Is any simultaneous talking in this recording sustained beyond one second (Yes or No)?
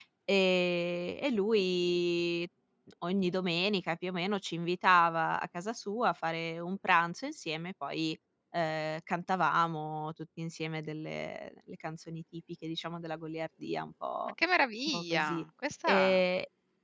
No